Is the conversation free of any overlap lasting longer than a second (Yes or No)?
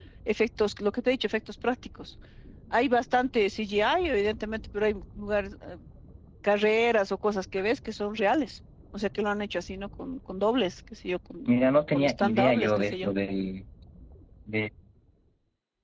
No